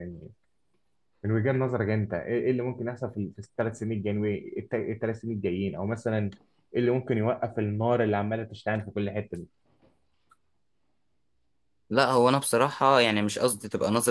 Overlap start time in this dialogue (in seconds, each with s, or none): none